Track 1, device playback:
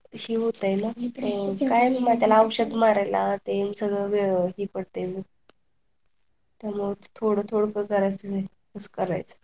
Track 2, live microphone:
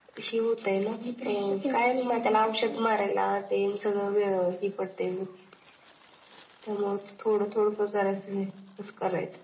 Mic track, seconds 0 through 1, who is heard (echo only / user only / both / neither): echo only